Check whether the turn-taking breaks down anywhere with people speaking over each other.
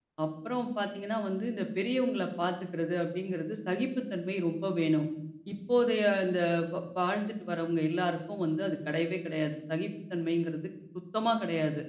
No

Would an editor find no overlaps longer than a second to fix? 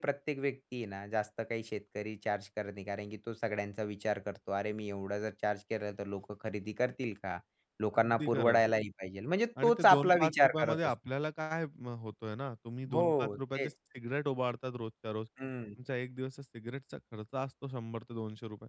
No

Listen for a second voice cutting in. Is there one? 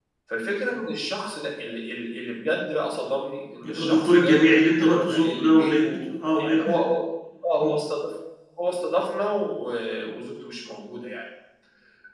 Yes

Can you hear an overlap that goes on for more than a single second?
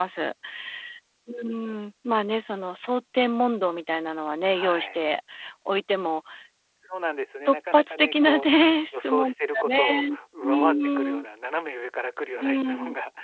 Yes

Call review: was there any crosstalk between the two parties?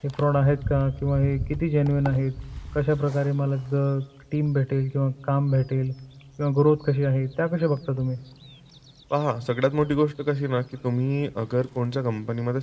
No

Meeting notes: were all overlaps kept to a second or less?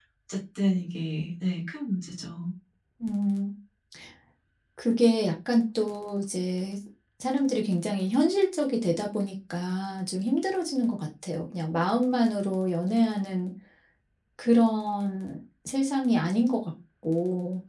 Yes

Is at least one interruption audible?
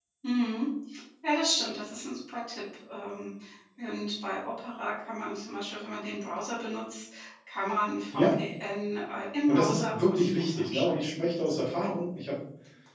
Yes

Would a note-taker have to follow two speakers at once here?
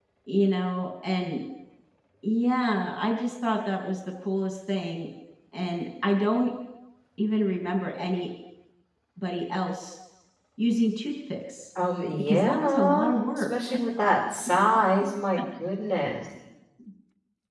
Yes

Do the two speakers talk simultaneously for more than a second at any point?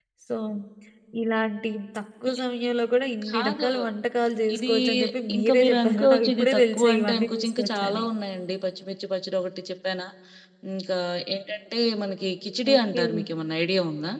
Yes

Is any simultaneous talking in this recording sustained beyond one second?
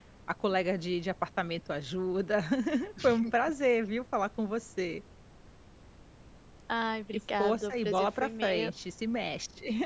Yes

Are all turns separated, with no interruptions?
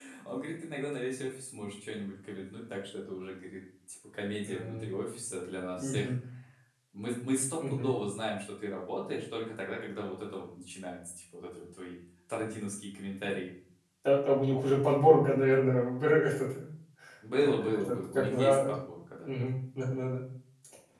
No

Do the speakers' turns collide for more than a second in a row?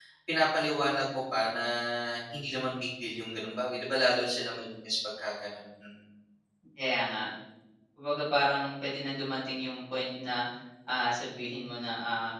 No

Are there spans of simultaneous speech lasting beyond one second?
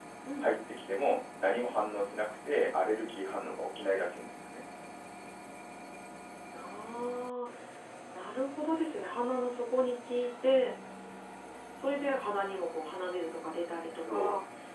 No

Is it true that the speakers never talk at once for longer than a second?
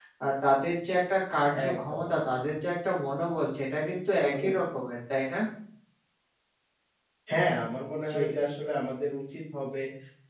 Yes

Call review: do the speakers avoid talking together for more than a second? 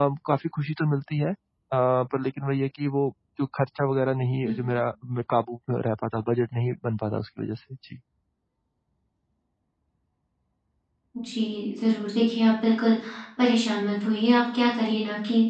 Yes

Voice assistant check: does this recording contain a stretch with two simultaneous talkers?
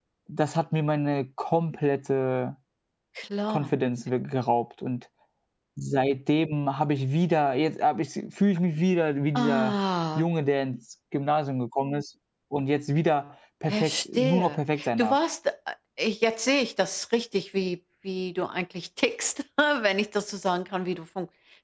Yes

